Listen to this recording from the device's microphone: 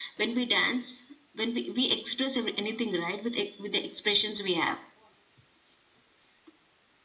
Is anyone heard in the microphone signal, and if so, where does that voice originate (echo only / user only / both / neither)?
echo only